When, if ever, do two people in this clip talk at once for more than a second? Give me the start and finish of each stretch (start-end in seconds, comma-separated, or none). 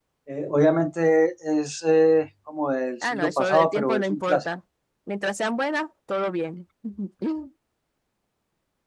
3.0-4.4